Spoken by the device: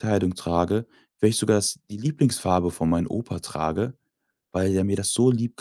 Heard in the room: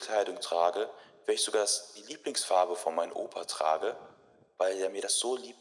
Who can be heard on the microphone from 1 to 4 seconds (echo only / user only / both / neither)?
echo only